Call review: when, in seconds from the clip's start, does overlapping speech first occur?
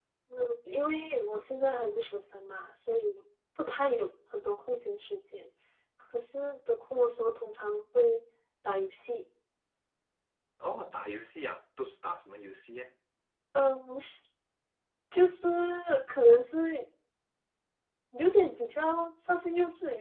none

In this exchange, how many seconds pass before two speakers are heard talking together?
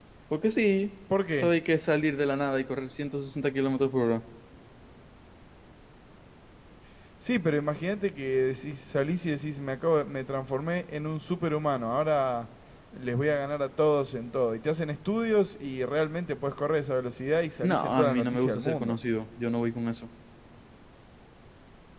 17.6 s

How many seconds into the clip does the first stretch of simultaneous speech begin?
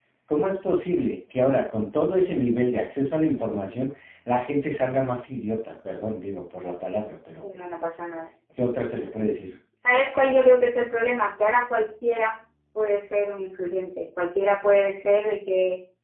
none

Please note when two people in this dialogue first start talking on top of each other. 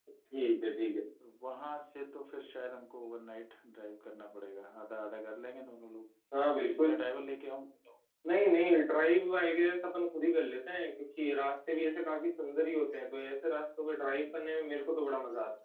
none

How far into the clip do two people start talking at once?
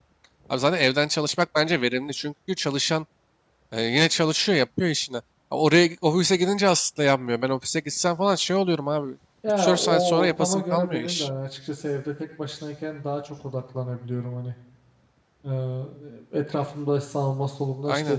9.6 s

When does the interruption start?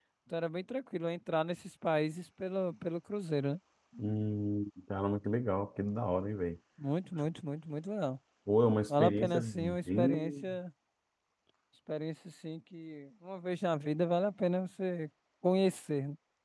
8.9 s

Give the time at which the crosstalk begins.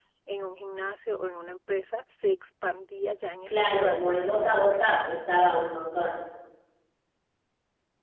3.5 s

